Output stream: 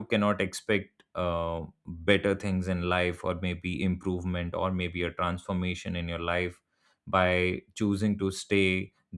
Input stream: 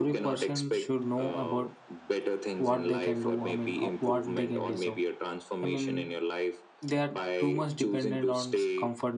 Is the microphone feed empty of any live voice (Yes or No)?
No